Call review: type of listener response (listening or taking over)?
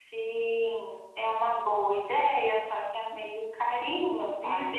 taking over